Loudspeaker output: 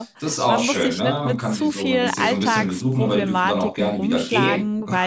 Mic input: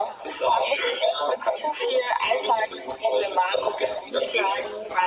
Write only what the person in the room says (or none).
none